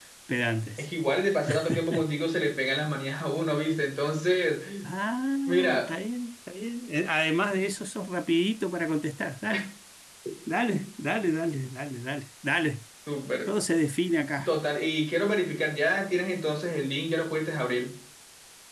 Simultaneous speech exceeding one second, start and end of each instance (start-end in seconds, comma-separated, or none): none